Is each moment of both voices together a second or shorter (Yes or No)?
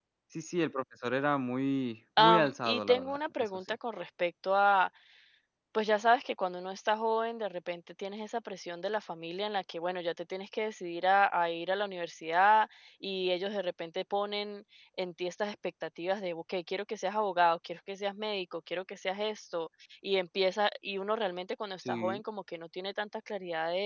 No